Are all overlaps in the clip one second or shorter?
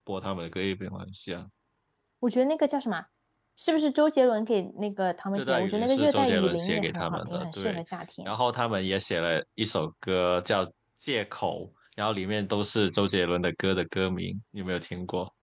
No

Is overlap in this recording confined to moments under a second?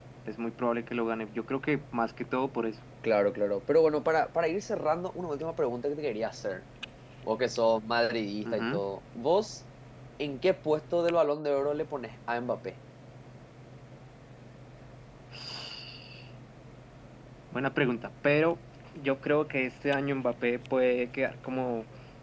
Yes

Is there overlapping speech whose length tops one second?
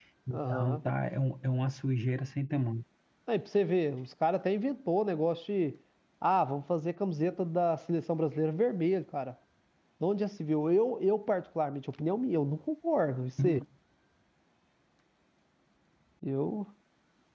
No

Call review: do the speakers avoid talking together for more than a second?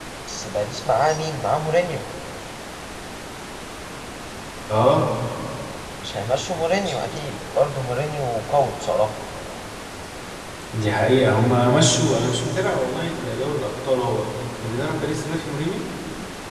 Yes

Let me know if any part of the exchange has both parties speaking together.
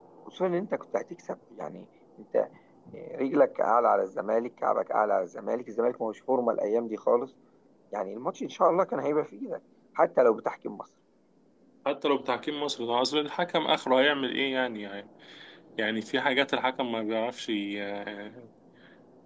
No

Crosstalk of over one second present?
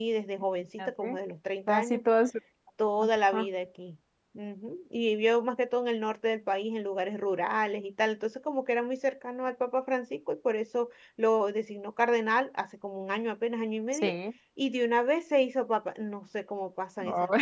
No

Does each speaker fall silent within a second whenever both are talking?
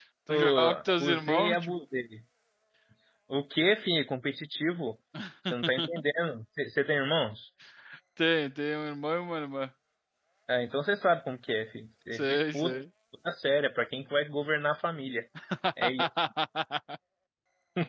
No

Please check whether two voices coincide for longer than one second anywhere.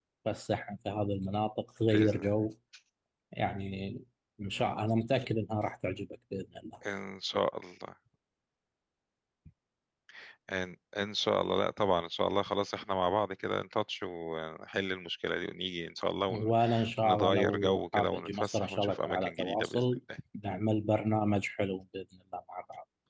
Yes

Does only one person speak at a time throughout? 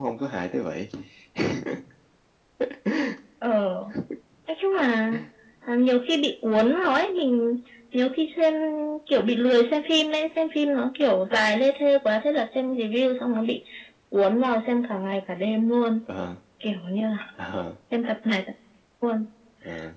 Yes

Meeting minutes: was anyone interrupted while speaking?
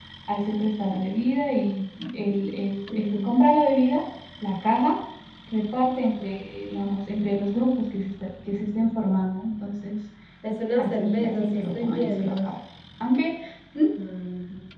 Yes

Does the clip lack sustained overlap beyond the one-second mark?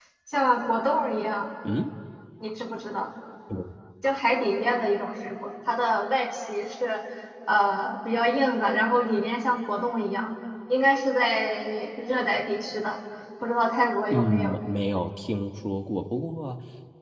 Yes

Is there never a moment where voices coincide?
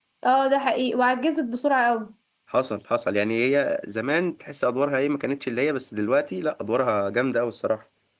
Yes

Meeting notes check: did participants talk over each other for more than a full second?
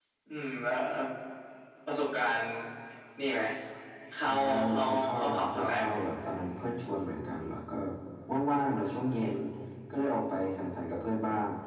Yes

